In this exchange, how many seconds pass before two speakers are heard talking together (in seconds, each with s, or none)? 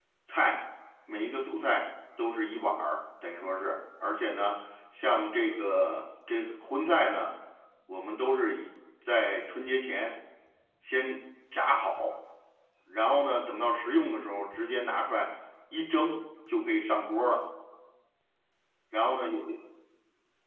none